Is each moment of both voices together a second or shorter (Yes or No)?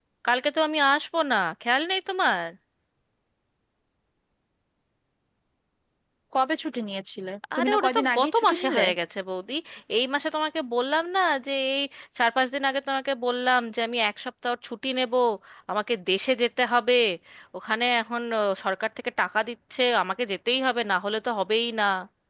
No